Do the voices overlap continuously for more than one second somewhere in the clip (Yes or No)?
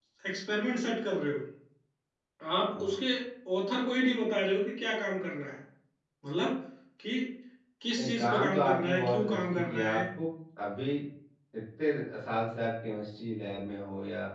Yes